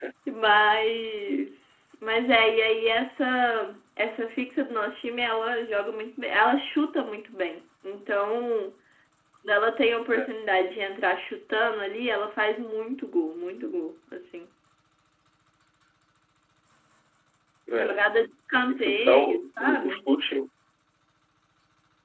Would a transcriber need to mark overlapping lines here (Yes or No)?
Yes